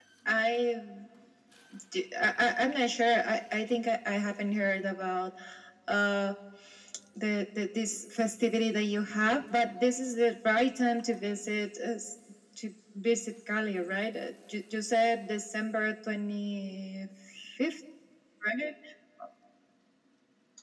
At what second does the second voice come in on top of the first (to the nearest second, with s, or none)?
none